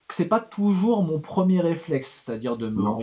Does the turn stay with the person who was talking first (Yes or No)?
Yes